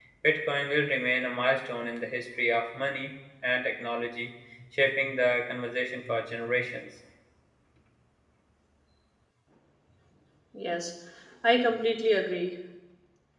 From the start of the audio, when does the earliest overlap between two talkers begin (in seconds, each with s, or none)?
none